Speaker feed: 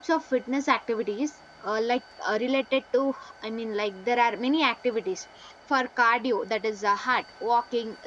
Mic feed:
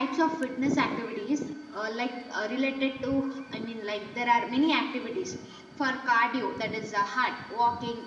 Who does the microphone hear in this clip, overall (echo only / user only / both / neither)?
echo only